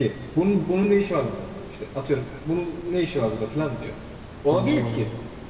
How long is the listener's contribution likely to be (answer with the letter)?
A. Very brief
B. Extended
A